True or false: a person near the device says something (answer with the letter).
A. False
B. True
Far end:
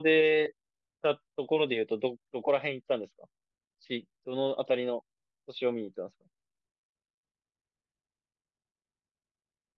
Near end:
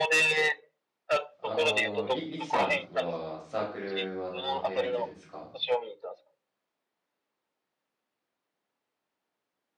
B